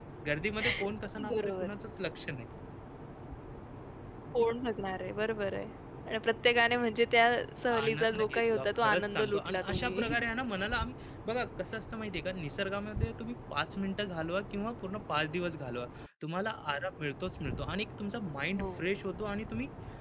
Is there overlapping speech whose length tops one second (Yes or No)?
Yes